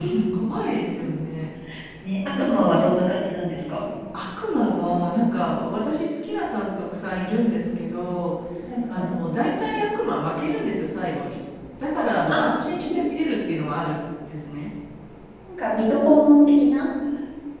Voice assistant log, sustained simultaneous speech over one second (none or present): none